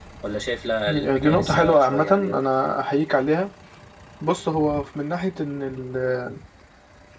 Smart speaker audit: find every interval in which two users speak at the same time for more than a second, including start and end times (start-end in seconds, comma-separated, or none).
0.9-2.4